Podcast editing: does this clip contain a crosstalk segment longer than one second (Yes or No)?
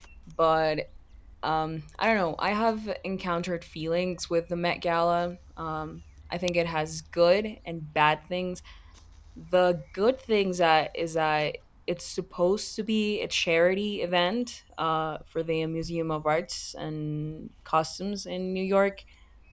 No